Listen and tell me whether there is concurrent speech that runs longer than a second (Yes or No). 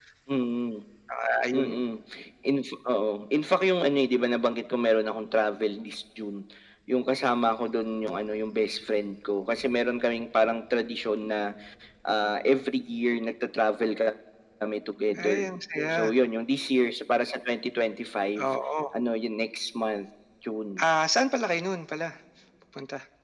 No